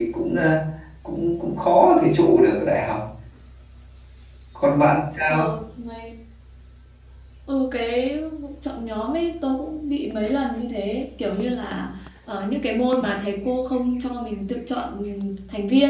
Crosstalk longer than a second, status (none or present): none